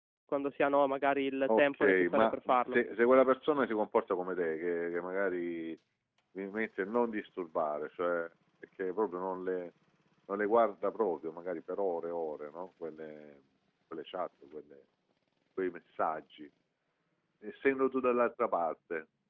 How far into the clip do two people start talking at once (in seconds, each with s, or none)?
1.5 s